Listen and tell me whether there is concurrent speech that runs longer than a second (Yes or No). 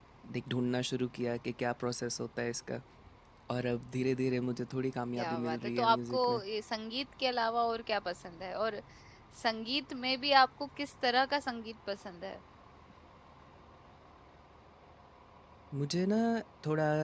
Yes